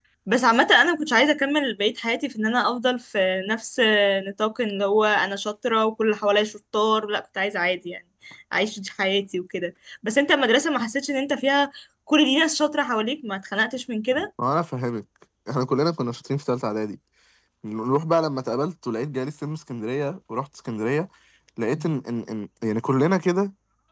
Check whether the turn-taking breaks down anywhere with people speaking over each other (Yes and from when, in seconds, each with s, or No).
No